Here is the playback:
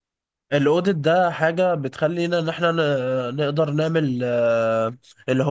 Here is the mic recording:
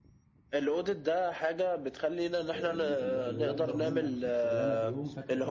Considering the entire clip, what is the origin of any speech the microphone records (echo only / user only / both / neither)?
both